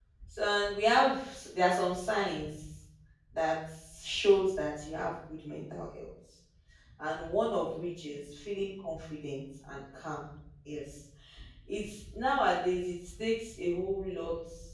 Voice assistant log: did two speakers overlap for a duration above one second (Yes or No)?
No